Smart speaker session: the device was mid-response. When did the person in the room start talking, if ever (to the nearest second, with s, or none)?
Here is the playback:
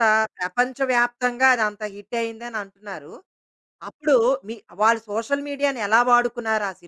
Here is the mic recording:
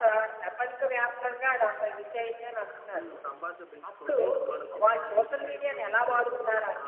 3 s